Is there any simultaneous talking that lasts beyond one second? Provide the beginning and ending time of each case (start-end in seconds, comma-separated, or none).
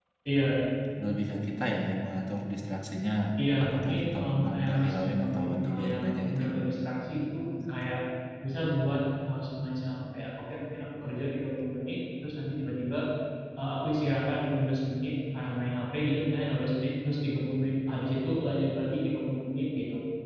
3.6-6.5